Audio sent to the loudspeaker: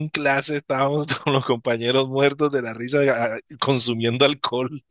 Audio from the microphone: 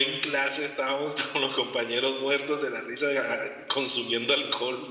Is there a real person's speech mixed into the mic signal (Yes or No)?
No